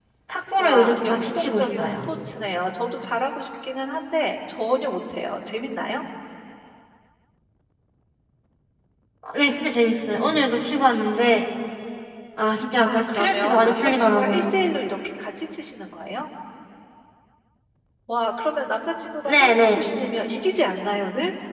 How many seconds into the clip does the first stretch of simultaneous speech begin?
0.6 s

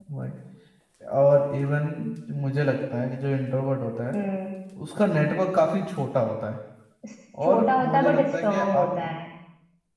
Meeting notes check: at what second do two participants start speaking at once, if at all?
7.5 s

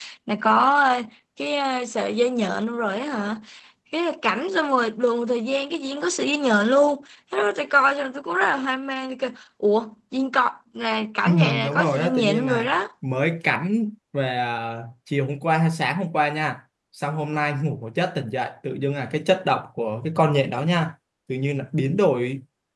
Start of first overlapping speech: 11.2 s

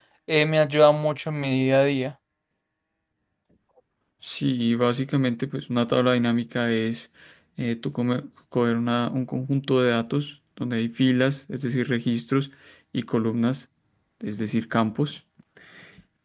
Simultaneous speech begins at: none

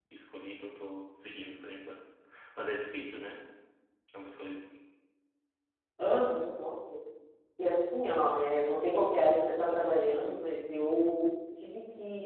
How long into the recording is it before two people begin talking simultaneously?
none

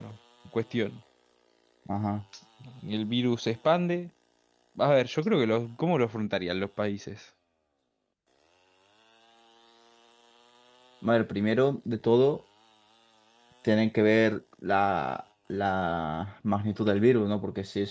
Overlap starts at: none

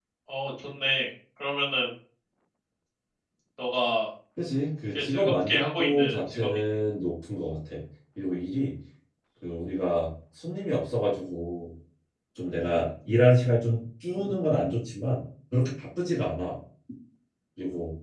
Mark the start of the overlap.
5.0 s

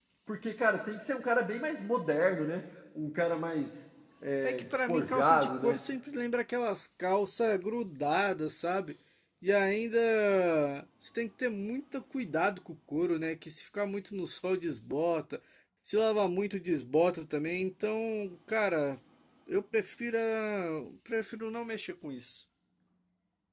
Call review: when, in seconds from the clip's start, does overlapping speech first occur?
4.4 s

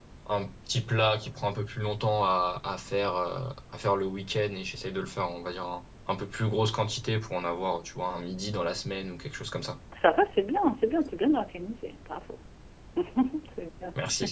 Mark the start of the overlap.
none

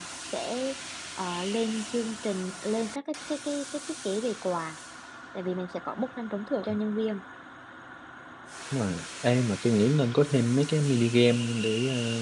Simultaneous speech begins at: none

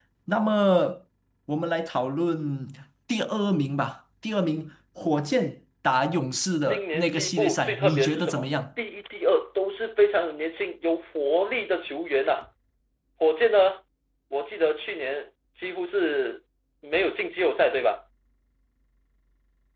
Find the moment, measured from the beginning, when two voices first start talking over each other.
6.6 s

